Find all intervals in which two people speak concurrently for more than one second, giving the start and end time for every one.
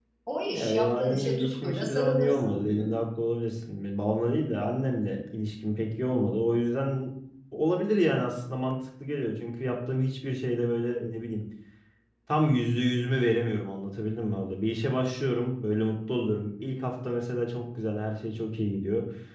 0.6-2.9

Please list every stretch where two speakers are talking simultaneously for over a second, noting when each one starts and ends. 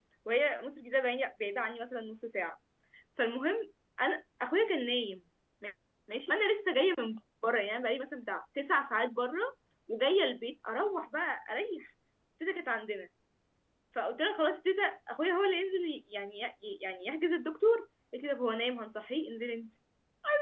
none

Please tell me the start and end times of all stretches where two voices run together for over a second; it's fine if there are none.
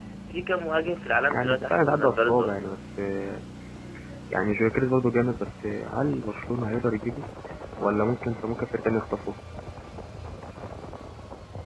1.3-2.7

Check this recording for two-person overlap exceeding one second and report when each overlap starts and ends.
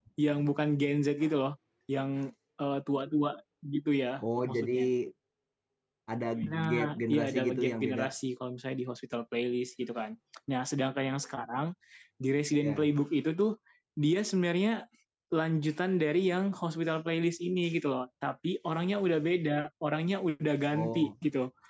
6.7-8.0

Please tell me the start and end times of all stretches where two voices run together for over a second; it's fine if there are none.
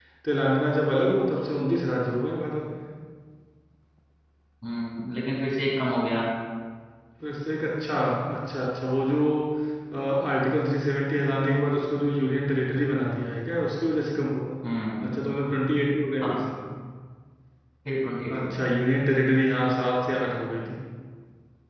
none

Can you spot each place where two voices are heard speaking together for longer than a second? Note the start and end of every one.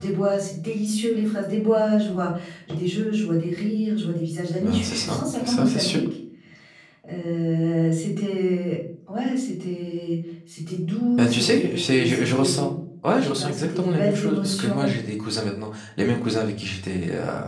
4.6-6.0, 11.2-12.7, 13.2-15.0

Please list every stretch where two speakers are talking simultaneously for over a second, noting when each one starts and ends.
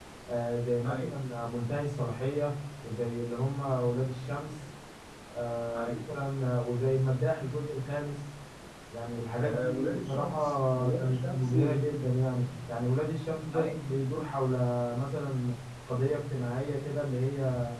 9.3-11.5

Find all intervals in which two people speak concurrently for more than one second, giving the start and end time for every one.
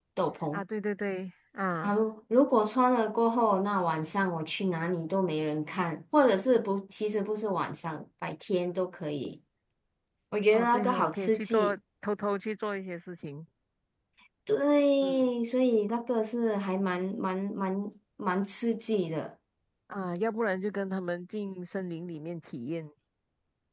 10.5-11.7

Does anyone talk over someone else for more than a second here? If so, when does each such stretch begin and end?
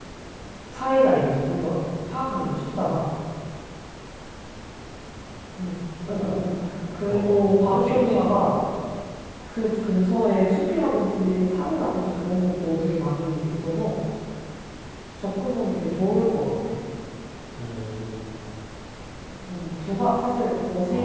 7.1-8.3

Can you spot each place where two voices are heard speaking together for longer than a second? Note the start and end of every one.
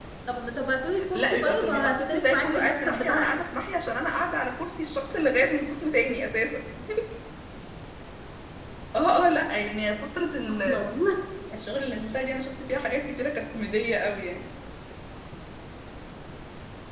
1.1-3.3

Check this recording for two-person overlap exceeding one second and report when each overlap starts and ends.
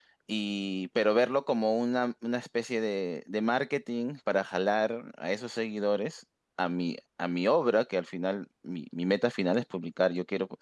none

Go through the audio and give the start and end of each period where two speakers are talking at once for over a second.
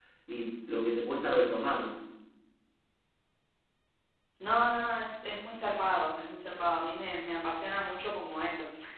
none

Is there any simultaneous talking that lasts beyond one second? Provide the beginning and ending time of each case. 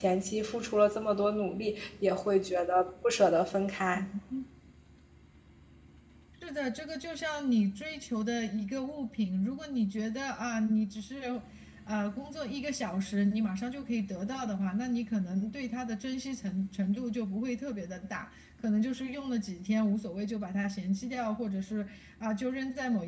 none

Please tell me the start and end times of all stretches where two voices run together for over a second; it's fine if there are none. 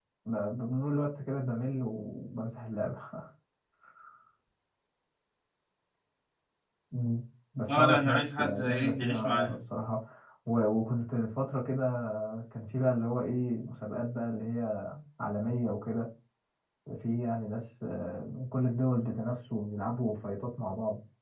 7.7-9.6

